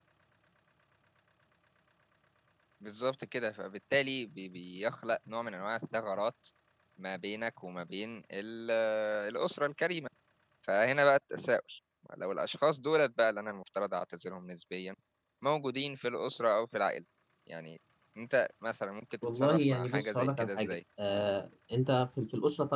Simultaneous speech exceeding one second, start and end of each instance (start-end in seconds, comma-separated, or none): 19.3-20.8